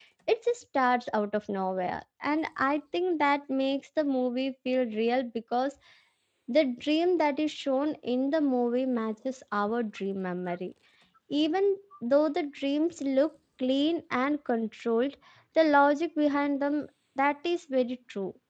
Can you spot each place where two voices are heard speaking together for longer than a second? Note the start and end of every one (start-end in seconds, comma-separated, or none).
none